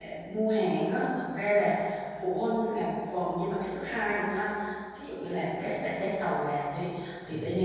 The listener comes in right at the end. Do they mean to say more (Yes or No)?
No